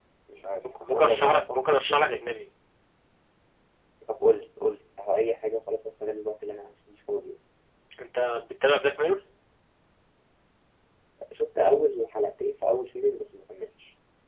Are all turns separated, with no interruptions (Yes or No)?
No